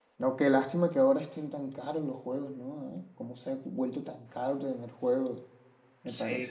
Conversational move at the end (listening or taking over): taking over